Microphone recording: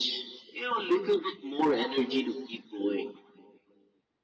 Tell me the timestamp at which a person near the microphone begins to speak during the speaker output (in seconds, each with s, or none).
none